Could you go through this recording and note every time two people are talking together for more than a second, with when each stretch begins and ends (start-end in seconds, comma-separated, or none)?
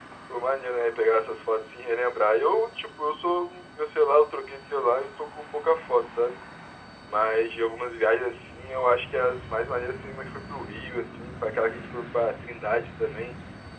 none